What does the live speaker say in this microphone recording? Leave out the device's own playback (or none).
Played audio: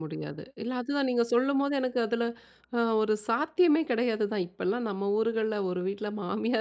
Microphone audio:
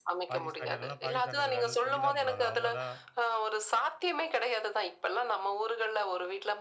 பாகிஸ்தானியர்கள்லாம், பாகிஸ்தானியர்கள் வேணுன்னு சொல்லிதான் போடுவாங்க. அவுங்க தான்,